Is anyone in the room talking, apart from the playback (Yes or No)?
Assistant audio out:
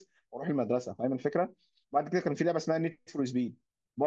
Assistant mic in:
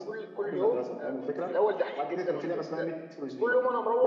Yes